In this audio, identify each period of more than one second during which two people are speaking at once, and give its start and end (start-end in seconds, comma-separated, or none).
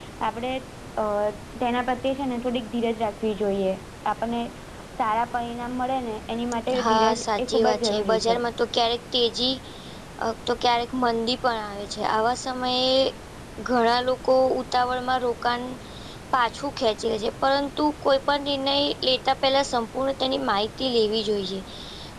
6.8-8.4